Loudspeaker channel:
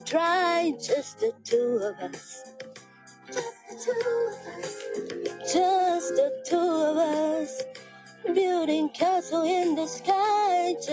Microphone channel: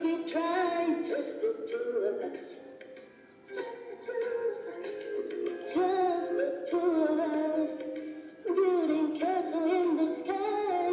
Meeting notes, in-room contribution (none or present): none